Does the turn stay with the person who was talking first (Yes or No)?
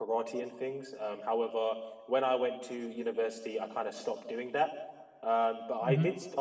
Yes